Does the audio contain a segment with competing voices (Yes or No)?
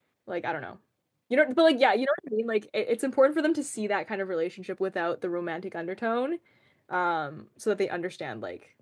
No